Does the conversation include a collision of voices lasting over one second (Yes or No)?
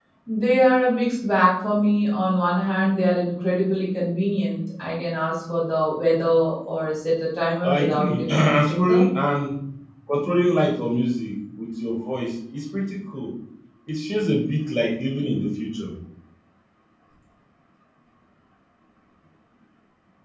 Yes